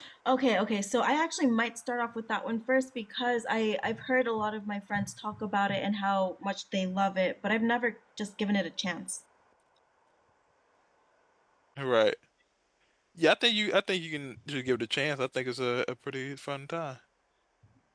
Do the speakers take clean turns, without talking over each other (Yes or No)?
Yes